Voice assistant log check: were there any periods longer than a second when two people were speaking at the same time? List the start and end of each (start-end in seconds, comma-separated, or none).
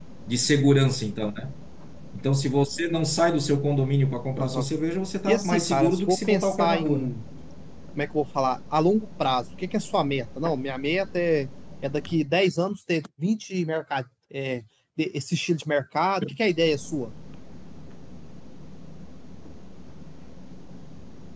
5.3-7.1